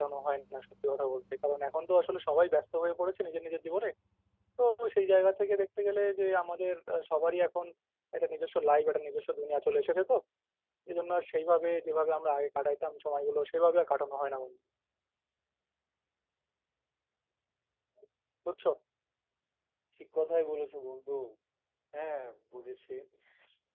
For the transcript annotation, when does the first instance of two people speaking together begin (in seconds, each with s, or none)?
none